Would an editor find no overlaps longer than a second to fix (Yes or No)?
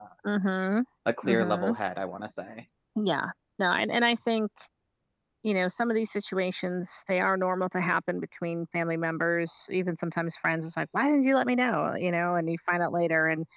Yes